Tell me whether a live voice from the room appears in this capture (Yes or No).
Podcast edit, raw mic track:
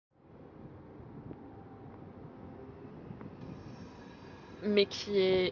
Yes